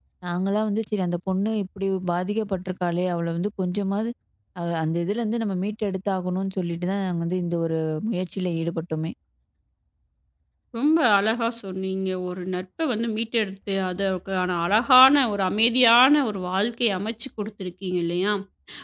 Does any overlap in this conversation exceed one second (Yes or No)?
No